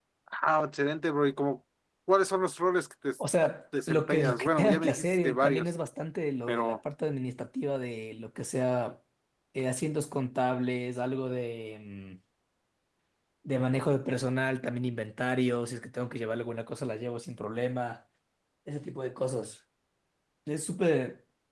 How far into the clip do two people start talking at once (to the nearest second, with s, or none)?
4 s